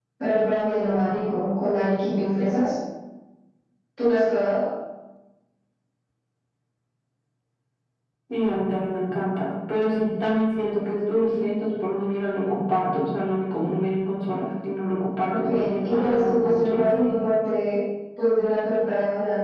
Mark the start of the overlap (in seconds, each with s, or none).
15.3 s